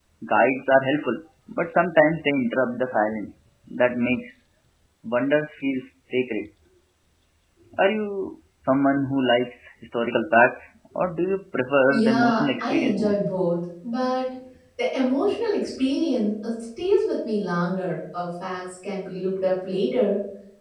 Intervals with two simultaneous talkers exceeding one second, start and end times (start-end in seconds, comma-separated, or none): 11.9-13.2